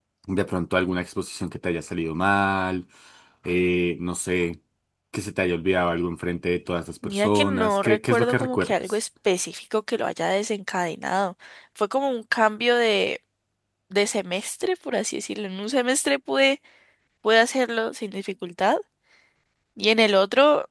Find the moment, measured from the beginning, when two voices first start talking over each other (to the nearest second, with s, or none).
7 s